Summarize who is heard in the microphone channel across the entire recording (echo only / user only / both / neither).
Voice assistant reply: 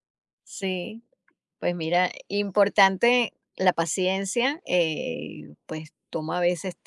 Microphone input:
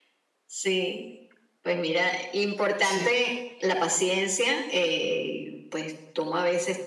both